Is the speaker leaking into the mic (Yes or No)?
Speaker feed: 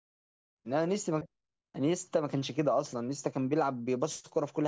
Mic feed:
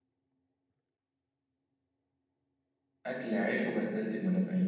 No